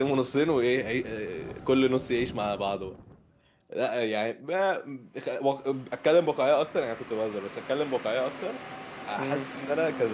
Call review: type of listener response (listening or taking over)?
listening